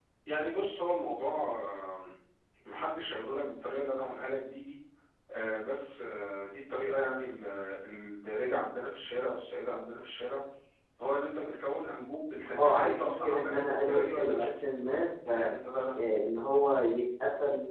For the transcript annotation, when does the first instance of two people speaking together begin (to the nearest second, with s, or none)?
13 s